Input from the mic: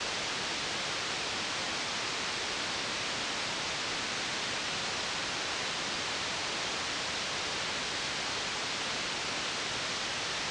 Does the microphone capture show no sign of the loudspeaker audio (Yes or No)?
Yes